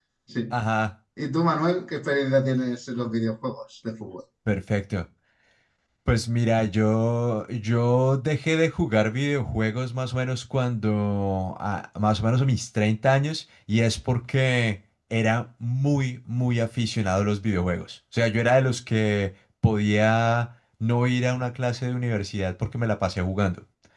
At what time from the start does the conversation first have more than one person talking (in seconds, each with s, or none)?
none